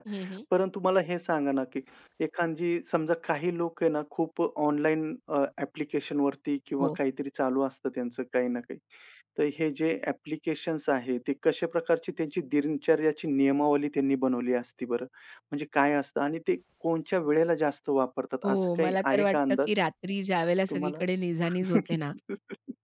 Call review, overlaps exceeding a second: present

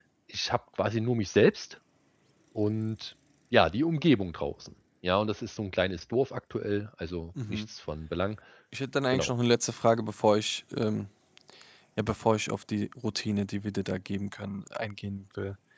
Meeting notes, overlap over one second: none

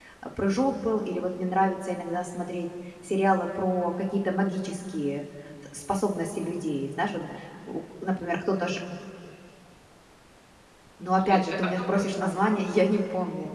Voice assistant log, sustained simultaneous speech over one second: present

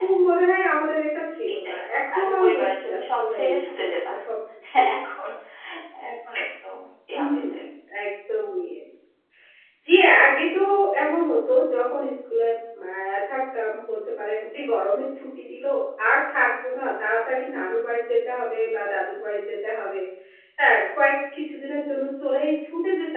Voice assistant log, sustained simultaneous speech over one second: present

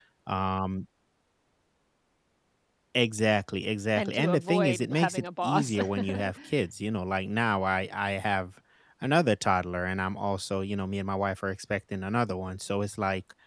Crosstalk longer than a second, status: present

